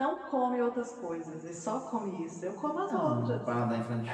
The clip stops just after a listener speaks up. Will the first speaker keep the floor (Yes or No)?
No